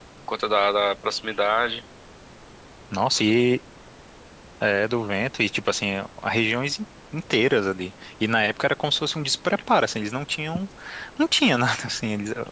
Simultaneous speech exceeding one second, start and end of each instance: none

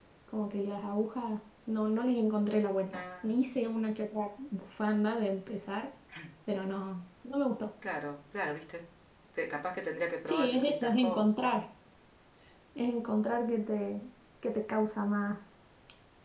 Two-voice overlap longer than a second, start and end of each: 10.3-11.5

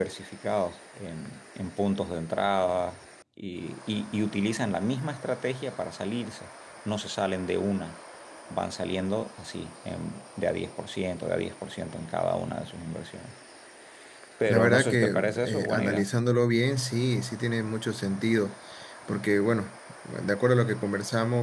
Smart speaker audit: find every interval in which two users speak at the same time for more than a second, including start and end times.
14.5-16.1

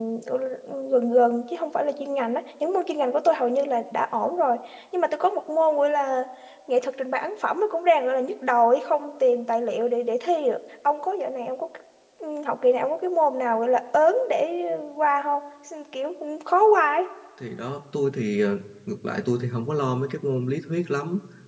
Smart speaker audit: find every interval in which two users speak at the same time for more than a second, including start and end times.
none

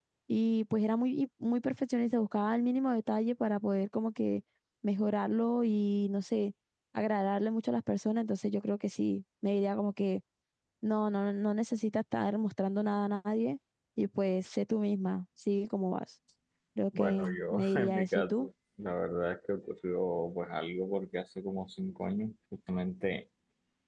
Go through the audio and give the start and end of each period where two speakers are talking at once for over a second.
17.0-18.5

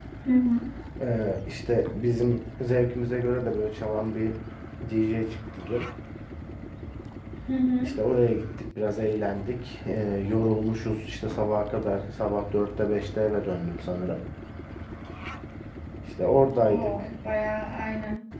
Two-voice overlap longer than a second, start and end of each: none

